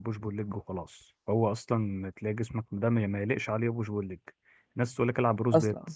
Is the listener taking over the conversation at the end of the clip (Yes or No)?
No